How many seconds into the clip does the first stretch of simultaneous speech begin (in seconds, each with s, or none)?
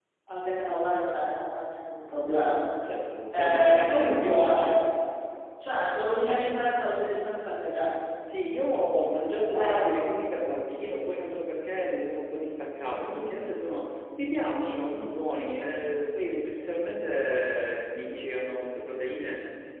3.3 s